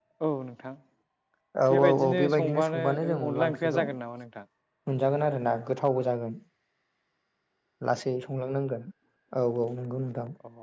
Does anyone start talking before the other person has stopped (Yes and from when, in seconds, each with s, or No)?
Yes, from 1.9 s